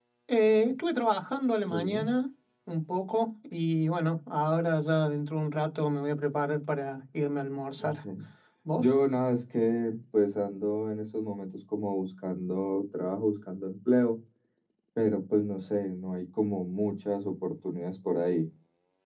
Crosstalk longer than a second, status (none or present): none